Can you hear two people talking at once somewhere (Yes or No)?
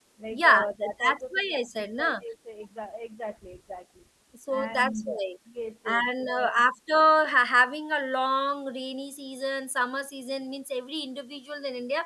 Yes